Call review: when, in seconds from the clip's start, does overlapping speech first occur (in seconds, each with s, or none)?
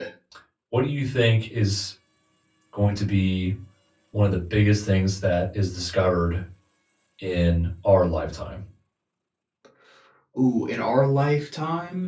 none